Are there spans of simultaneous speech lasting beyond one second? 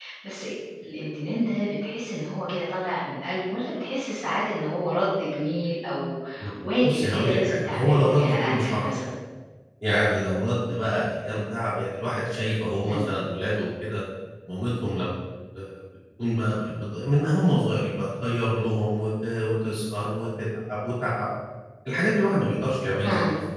Yes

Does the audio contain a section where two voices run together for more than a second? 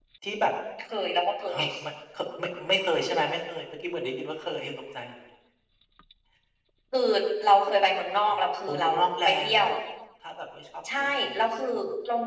Yes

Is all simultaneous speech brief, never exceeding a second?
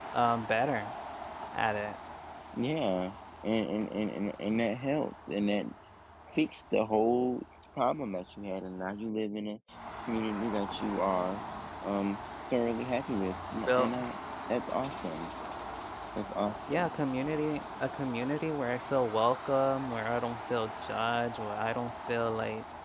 Yes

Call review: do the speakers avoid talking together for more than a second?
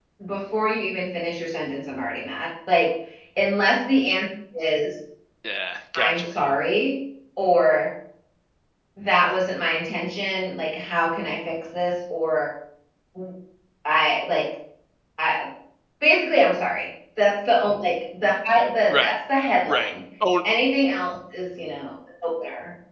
Yes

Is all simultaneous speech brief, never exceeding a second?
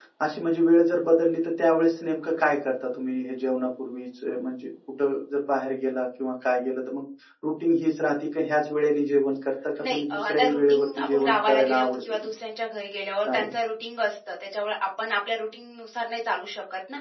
No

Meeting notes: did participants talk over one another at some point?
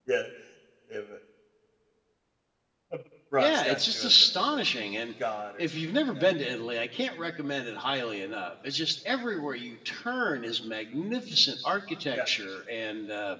Yes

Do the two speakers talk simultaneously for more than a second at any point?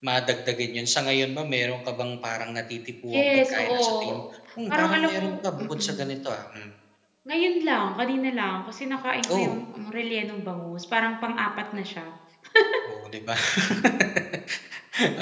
Yes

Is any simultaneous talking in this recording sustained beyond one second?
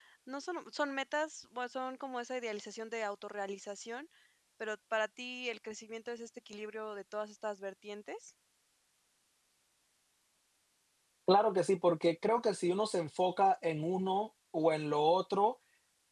No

